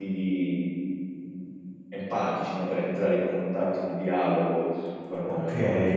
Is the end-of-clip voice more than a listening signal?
Yes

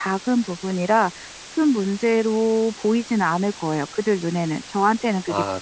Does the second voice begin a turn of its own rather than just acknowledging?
Yes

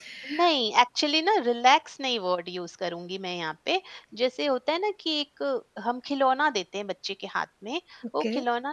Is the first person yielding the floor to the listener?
No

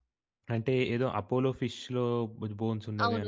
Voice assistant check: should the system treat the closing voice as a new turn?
Yes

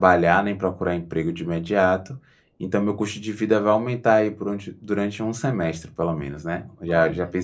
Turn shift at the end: No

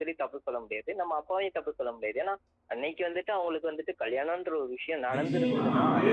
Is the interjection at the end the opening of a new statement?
Yes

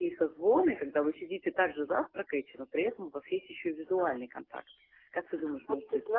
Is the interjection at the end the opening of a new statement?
Yes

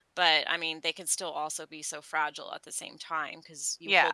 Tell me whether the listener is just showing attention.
Yes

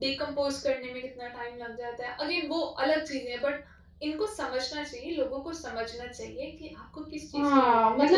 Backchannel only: No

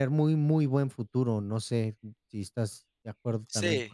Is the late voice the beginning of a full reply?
Yes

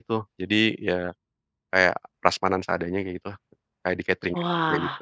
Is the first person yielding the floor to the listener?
Yes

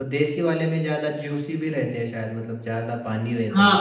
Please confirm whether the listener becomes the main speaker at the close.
Yes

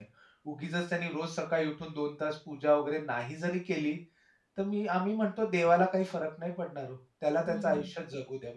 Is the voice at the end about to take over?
No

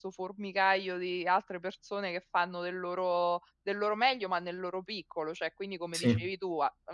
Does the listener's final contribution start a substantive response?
No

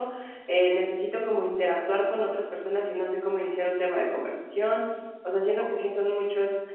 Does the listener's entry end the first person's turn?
No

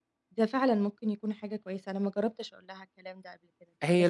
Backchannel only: No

